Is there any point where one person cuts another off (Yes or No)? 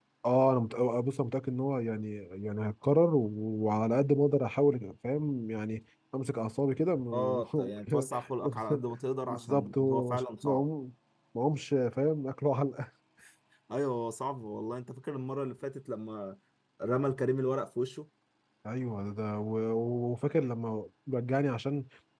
Yes